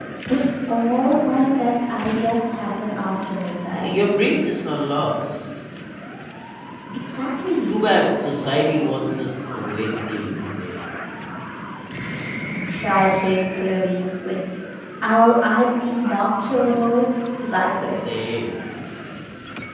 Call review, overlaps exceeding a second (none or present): none